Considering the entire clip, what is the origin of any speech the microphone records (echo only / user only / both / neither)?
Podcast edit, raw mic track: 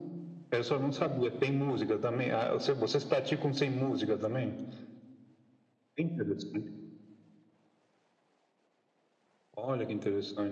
echo only